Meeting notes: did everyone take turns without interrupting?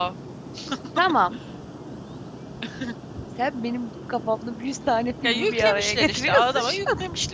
No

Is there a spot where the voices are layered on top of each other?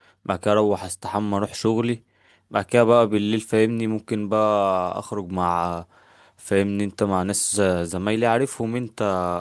No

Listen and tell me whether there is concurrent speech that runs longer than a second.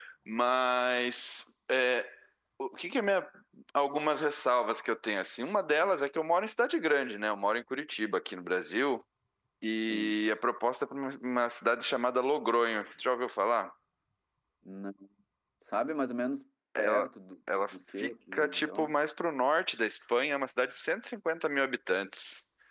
Yes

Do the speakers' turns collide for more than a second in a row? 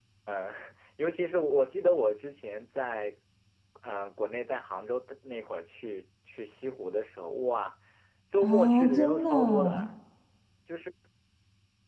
Yes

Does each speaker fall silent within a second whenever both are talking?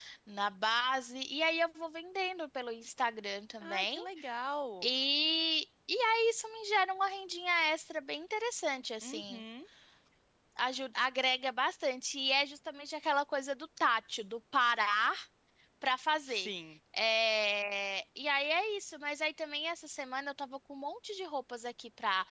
Yes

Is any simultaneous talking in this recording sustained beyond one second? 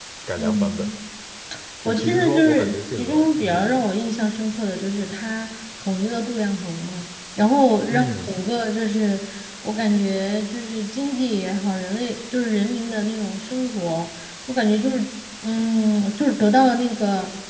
Yes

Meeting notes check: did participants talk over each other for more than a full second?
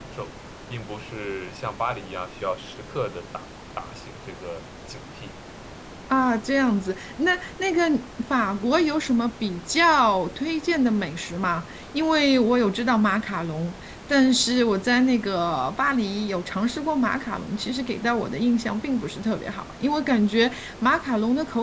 No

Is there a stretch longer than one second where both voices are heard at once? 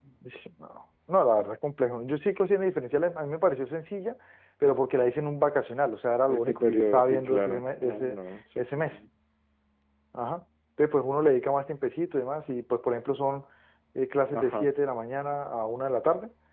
Yes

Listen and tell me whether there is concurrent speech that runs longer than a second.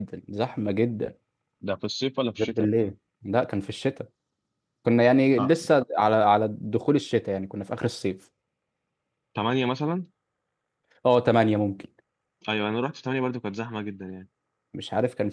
No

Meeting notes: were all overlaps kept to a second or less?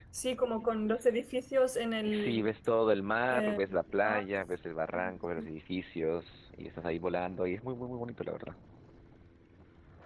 Yes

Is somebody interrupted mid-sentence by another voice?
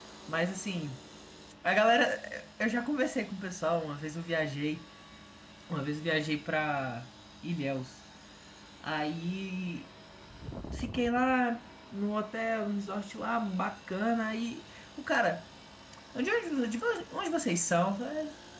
No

